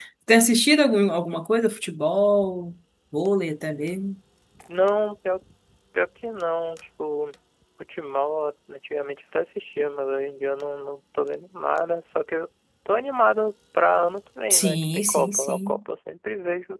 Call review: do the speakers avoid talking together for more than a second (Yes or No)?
No